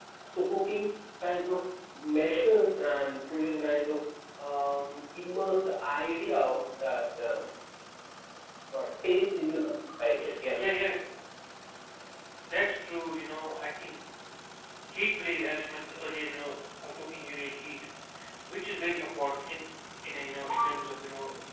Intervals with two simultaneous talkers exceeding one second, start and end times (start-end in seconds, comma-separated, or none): none